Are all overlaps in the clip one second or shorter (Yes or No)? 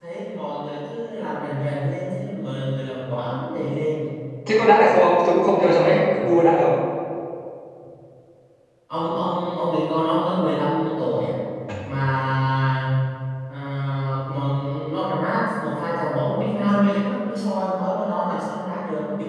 Yes